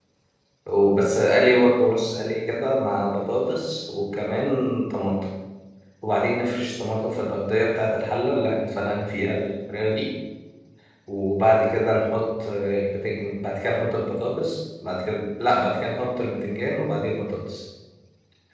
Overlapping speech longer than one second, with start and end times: none

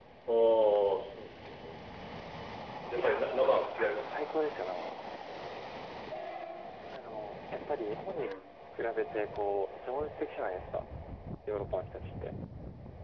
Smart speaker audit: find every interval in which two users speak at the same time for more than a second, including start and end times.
3.0-4.2

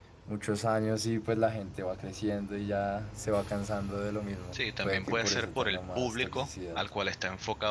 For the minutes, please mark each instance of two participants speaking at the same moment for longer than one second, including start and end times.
4.5-6.8

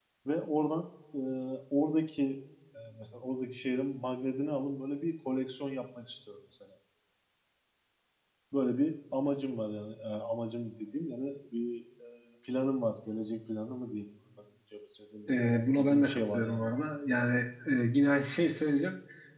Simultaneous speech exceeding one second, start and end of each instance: 15.3-16.7

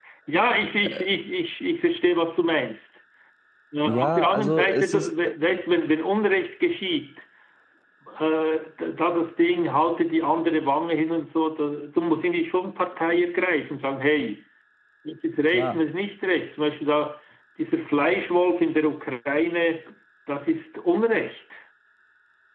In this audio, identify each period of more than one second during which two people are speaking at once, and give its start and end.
3.9-5.3

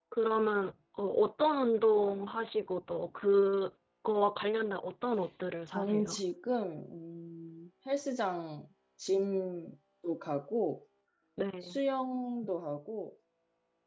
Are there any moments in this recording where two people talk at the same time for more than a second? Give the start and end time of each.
none

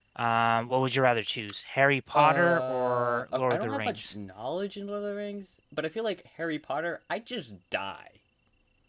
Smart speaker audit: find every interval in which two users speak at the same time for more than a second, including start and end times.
2.1-4.1

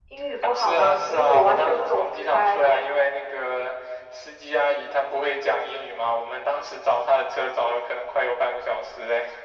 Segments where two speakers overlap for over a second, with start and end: 0.6-2.8

